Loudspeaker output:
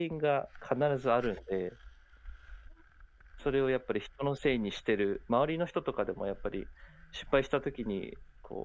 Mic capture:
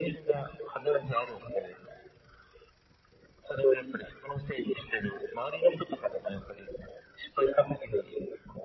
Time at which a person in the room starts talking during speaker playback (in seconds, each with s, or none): none